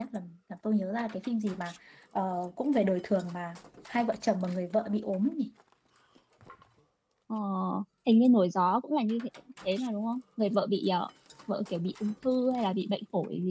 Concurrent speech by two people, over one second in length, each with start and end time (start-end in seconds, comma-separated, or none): none